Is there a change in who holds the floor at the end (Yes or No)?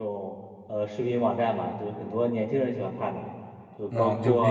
Yes